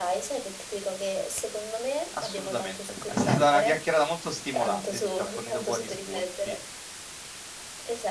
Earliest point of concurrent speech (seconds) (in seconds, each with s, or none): 2.2 s